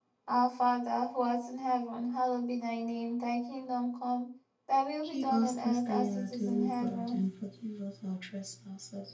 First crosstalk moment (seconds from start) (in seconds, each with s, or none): 5.0 s